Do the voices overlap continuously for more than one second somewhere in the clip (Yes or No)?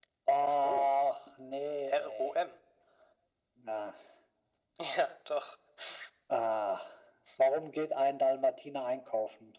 No